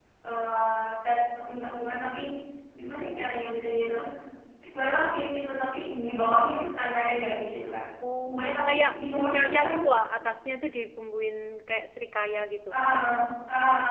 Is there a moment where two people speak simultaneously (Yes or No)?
Yes